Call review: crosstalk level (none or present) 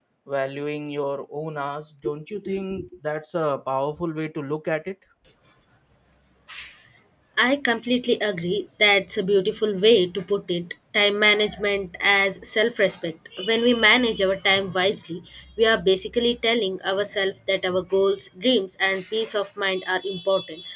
none